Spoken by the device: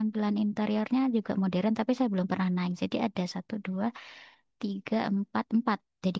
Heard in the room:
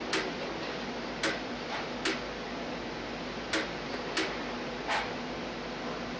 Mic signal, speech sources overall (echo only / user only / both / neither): neither